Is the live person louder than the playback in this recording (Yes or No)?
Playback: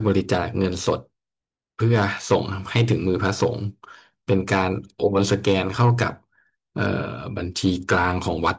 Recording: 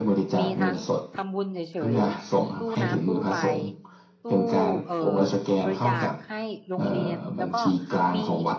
No